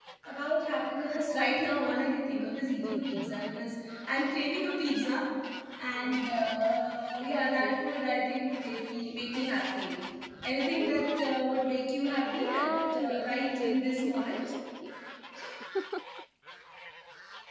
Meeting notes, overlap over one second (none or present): present